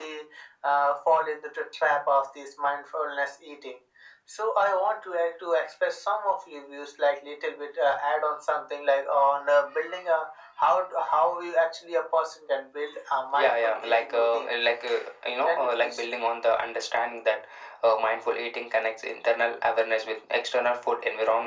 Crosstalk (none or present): present